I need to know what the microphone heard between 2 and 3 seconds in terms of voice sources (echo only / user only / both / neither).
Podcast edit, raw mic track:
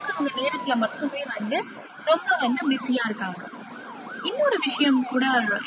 echo only